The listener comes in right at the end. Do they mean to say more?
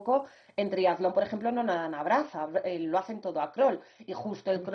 No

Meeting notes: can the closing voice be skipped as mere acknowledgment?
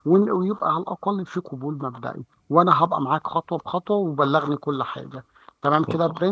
No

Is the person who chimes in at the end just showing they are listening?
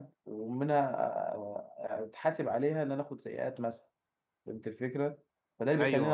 Yes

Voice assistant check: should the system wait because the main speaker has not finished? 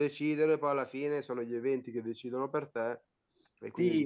No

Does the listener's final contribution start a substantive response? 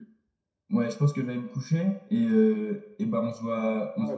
Yes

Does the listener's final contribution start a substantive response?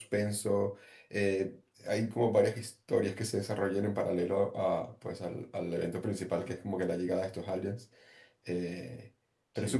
No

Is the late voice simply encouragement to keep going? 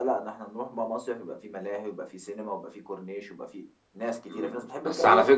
No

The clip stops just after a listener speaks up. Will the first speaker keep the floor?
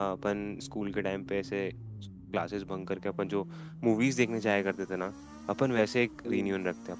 Yes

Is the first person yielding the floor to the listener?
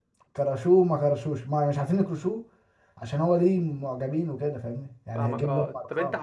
Yes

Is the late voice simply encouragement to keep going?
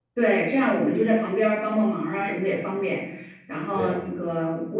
Yes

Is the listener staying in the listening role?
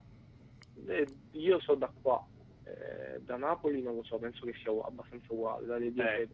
No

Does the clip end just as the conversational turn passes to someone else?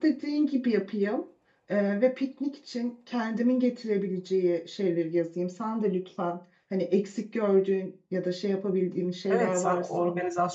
Yes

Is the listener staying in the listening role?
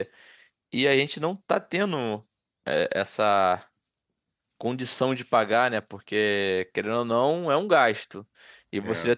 Yes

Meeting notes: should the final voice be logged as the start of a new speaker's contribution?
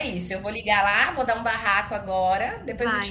Yes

